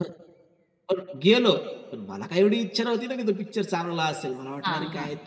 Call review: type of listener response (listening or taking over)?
listening